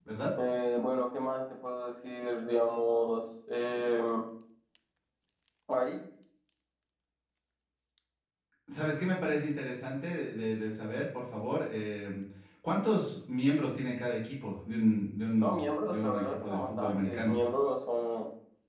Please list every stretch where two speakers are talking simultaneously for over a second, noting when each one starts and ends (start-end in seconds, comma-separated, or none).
15.4-17.3